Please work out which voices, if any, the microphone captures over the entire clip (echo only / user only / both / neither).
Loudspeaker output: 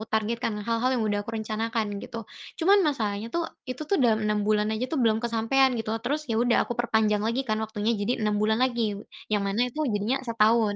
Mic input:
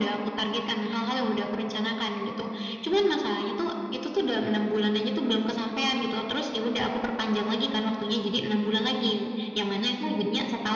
echo only